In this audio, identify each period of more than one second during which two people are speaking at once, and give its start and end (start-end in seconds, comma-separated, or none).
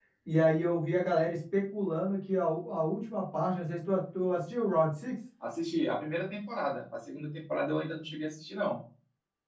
none